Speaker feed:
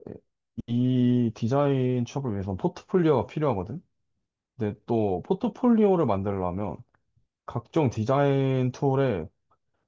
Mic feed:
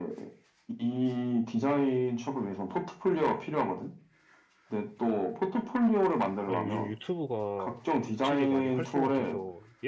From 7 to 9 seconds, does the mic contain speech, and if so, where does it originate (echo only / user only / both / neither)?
both